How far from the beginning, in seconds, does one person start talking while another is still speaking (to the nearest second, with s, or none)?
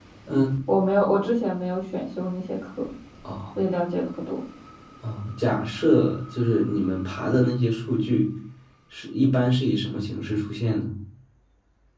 none